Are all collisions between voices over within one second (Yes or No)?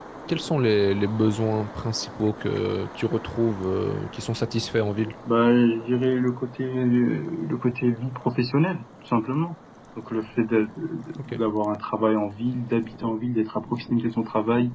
Yes